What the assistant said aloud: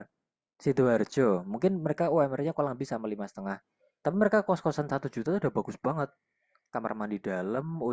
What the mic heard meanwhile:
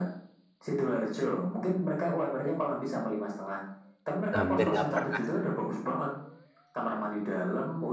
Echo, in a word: present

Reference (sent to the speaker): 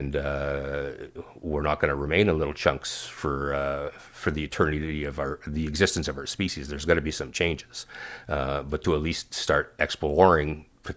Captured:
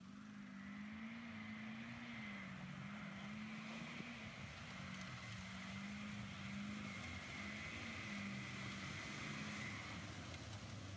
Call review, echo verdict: none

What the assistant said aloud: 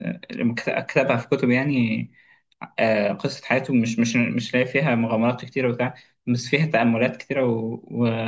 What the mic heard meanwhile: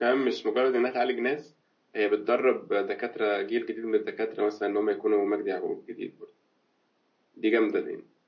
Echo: none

